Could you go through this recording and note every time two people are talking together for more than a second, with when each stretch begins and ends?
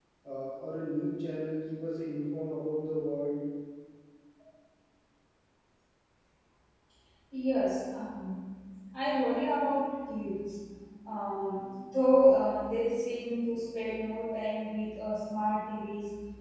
none

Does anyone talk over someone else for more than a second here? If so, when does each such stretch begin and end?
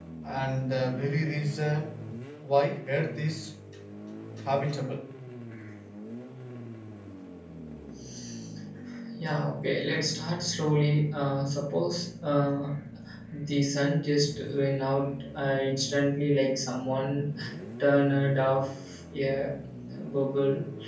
none

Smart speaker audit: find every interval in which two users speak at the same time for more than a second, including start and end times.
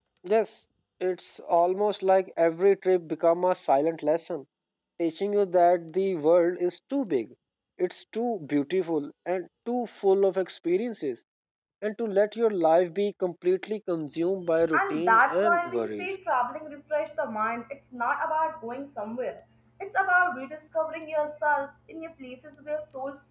14.7-16.1

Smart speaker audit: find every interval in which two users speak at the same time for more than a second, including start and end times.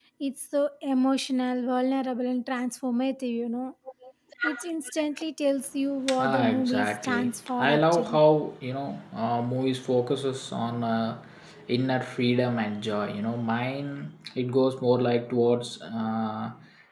6.2-8.2

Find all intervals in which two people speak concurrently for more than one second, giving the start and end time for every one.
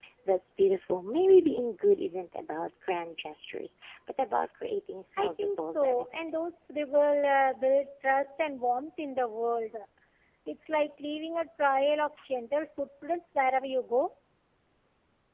5.2-6.4

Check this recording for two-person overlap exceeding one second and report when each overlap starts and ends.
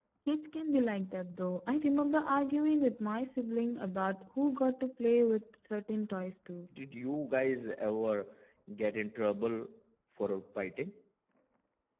none

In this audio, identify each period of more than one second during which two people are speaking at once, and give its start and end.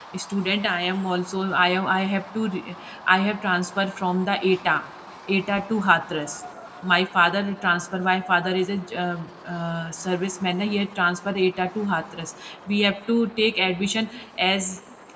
none

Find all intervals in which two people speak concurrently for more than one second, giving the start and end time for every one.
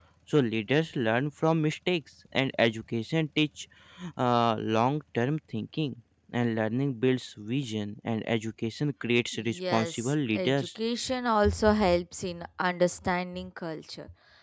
9.3-10.7

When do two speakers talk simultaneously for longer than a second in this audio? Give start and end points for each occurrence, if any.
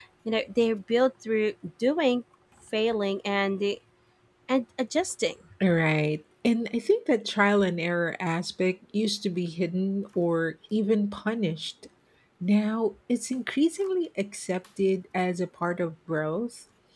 none

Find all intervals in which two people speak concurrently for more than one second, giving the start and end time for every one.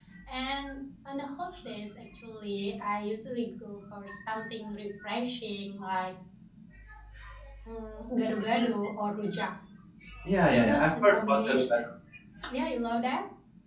10.5-11.8

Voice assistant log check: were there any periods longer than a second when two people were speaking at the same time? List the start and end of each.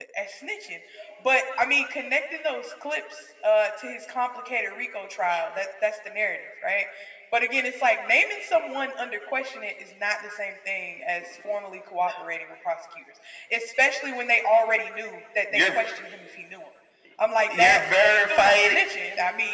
17.5-18.8

